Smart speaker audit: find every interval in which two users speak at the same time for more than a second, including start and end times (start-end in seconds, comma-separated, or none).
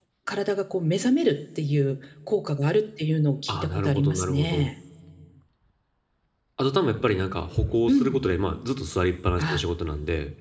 3.5-4.7